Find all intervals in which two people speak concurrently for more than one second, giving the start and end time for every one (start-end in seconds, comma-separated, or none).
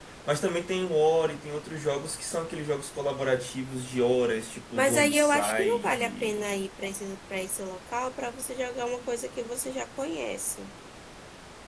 4.8-6.4